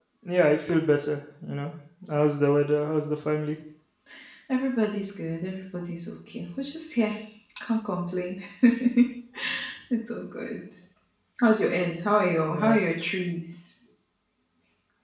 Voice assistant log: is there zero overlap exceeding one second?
Yes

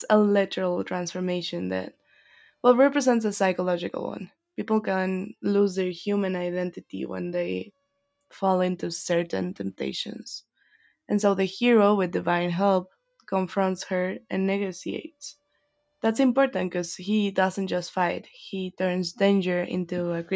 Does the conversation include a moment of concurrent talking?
No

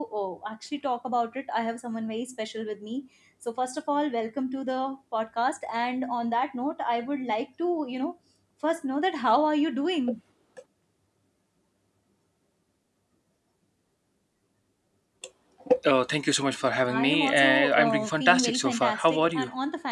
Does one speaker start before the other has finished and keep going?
Yes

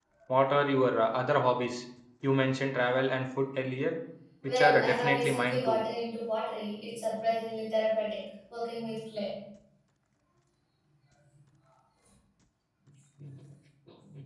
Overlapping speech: Yes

